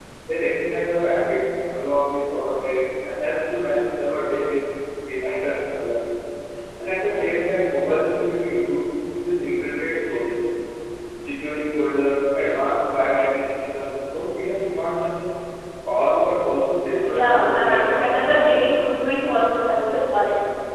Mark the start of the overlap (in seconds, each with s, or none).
17.0 s